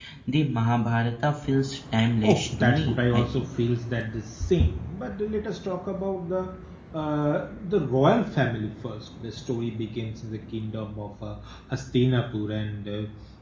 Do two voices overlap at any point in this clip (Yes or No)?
Yes